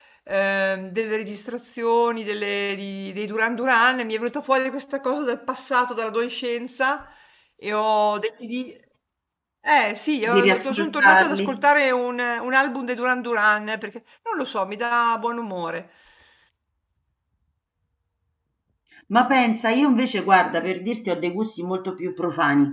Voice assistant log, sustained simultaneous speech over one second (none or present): present